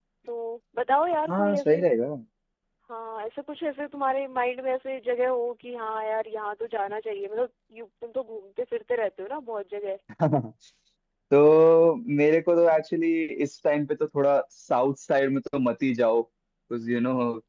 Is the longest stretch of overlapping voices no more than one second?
Yes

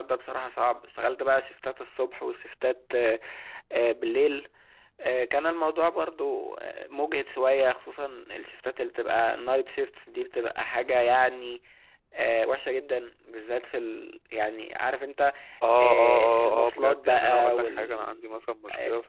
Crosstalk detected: Yes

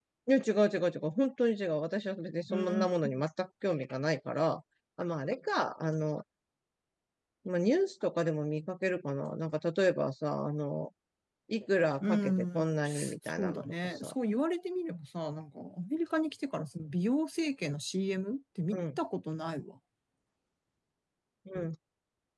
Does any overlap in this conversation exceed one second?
Yes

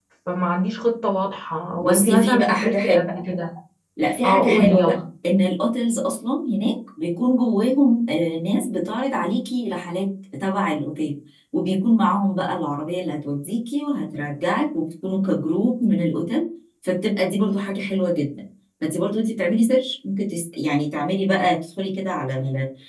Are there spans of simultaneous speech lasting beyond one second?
Yes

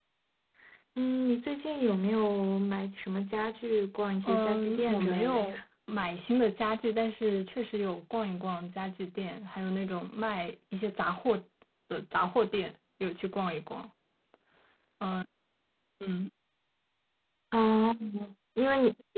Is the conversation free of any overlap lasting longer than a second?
No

